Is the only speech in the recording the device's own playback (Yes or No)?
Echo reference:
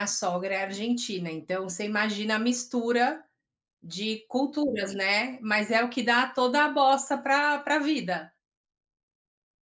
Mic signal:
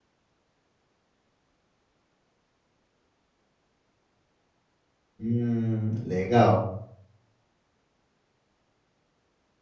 No